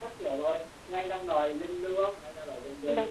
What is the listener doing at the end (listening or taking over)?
taking over